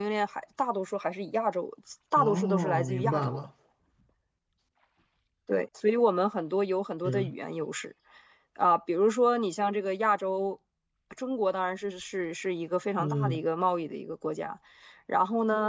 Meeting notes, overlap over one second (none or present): present